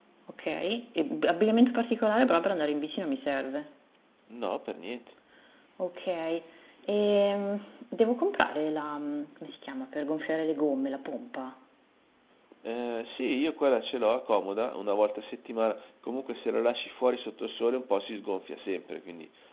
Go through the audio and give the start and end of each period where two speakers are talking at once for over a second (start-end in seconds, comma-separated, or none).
none